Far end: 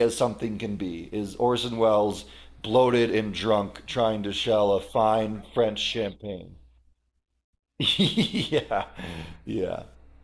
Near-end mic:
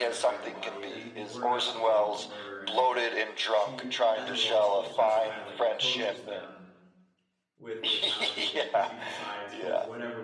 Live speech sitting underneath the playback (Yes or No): Yes